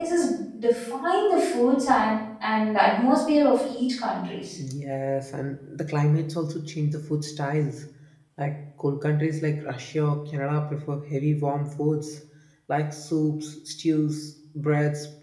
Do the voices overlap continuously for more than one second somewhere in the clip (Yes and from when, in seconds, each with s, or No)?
No